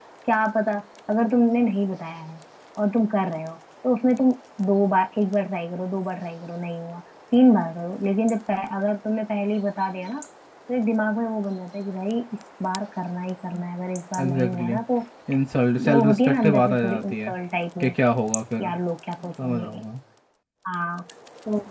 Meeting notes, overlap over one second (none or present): present